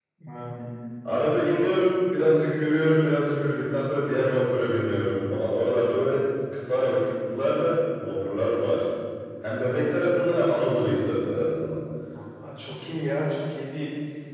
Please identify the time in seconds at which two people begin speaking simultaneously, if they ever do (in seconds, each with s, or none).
none